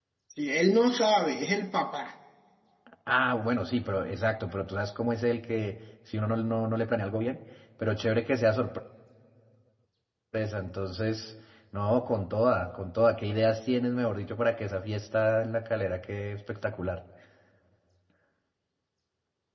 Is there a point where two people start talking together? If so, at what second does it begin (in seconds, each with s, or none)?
none